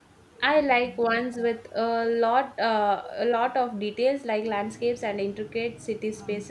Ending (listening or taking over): listening